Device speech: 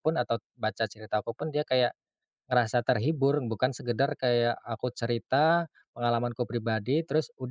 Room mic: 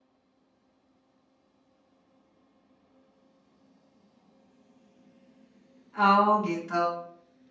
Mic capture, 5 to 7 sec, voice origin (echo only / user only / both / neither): user only